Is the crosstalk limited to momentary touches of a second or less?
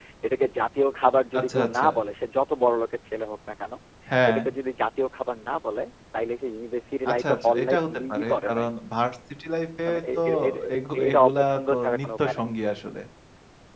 No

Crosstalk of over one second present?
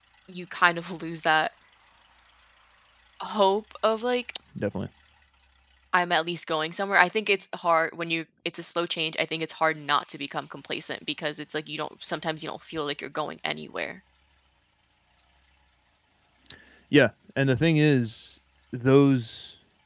No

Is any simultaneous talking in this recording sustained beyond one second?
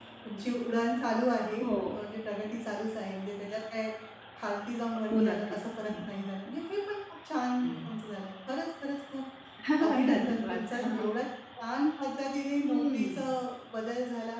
Yes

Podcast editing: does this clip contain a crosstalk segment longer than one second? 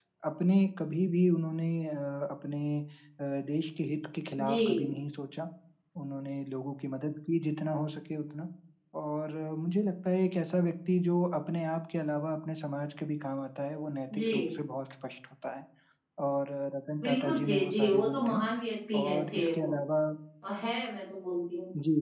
Yes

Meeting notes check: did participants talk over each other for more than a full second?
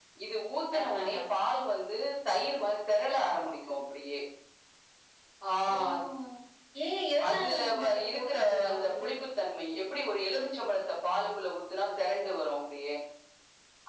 Yes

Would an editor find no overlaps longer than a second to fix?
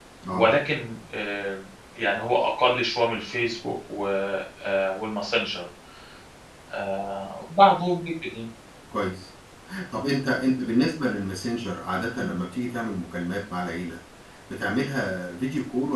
Yes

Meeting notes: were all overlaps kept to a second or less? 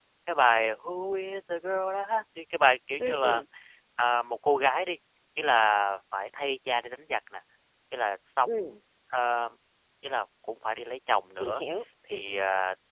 Yes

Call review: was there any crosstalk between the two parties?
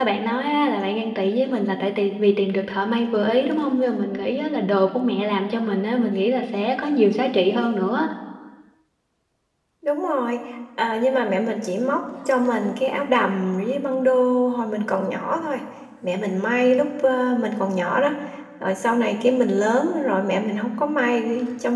No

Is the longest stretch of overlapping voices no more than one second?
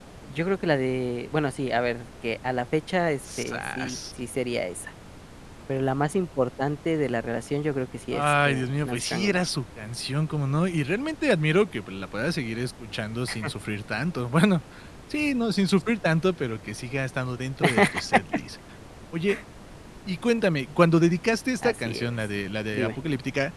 No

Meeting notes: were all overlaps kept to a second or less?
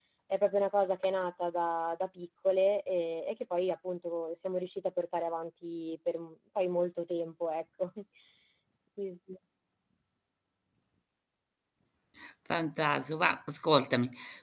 Yes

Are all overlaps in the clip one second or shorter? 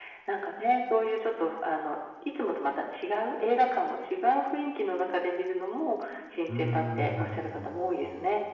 No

